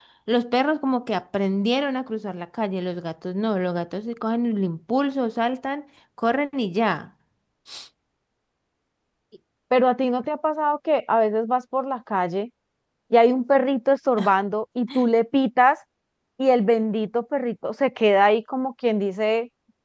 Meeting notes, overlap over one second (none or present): none